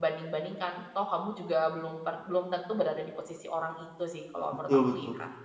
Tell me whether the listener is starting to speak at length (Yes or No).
Yes